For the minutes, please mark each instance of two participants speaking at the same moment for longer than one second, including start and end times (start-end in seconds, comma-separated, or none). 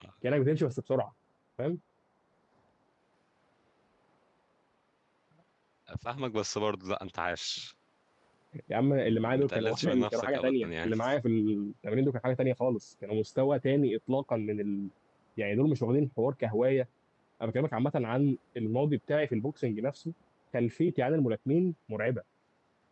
9.1-10.9